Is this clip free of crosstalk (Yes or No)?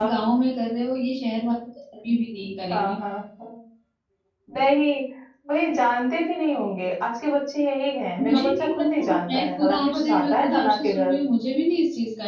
No